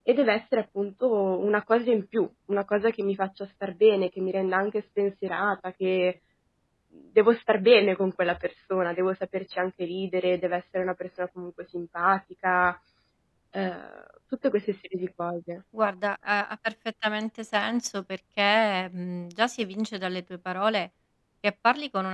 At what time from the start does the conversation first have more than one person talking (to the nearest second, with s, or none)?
none